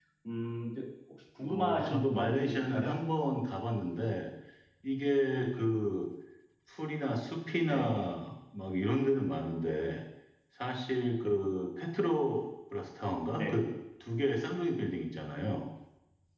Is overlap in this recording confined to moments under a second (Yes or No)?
No